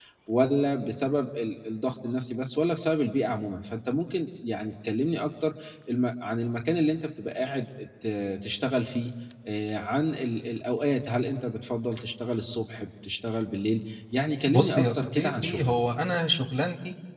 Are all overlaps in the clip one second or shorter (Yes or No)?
No